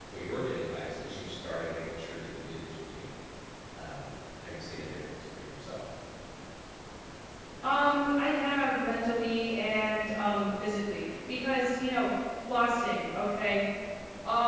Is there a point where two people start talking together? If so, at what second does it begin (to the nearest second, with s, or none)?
none